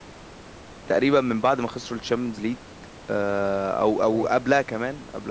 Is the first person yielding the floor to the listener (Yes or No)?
No